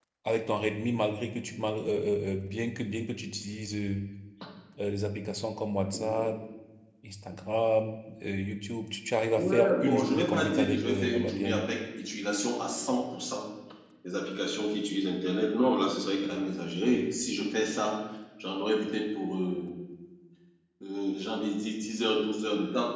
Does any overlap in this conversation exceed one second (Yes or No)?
Yes